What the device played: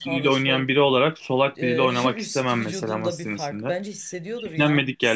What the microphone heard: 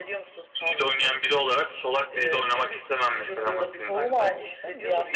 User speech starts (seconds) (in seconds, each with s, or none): 3.3 s